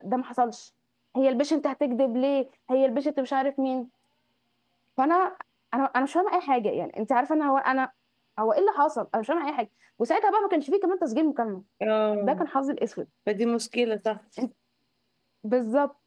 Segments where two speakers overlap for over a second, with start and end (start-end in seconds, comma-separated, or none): none